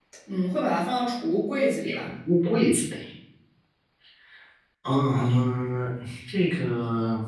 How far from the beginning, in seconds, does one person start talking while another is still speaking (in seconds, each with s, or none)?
none